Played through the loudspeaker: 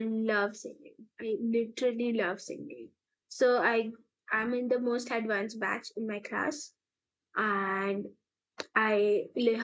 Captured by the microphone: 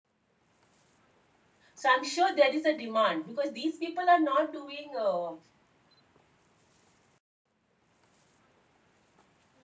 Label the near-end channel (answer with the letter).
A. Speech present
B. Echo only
A